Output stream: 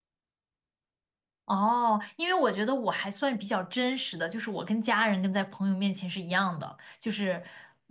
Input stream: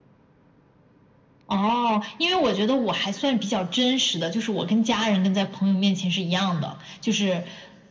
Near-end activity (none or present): none